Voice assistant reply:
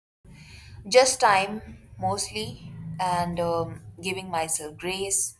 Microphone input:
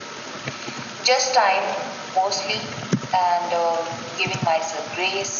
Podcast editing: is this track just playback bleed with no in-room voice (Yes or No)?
Yes